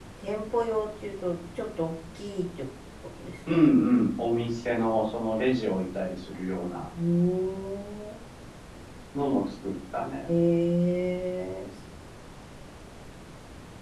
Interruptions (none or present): none